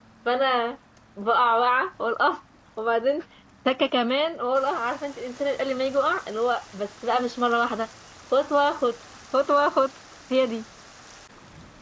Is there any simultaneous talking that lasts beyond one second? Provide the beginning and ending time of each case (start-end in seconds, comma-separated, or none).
none